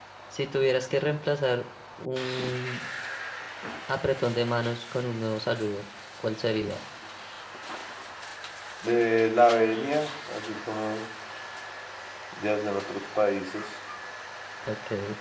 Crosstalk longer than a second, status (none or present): none